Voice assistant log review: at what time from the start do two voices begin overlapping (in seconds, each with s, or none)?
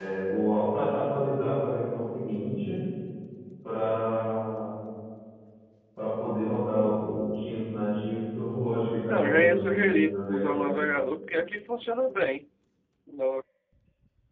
9.1 s